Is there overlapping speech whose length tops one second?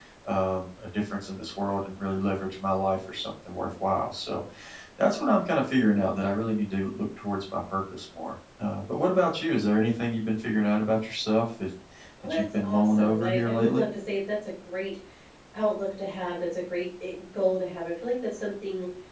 Yes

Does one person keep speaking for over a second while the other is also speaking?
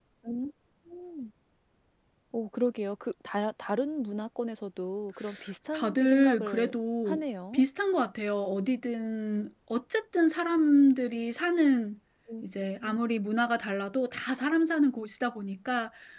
Yes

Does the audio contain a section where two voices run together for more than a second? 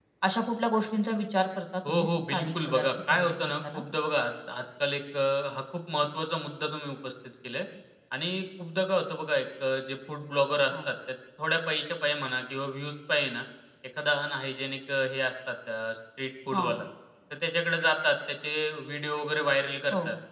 Yes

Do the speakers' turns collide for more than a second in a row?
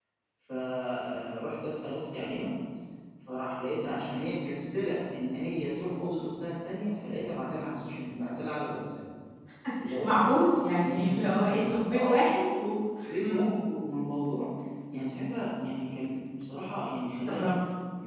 Yes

